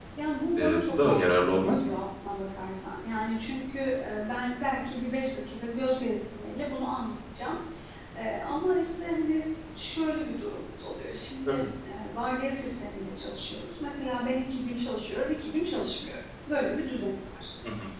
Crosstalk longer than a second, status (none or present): present